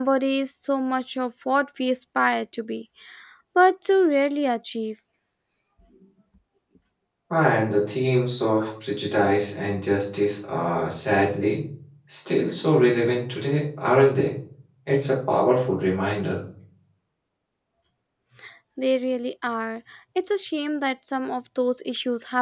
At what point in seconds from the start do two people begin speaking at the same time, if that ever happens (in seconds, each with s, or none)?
none